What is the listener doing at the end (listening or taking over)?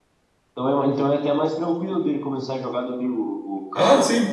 taking over